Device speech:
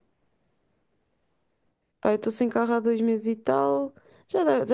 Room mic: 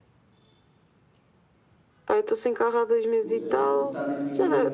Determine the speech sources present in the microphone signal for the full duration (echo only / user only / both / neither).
both